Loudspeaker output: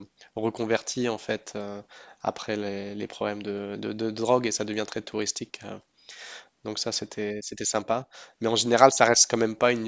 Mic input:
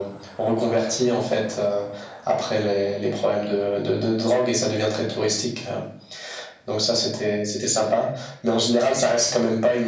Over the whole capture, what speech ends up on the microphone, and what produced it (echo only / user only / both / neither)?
echo only